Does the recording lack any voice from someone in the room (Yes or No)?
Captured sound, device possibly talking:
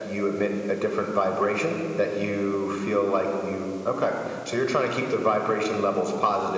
Yes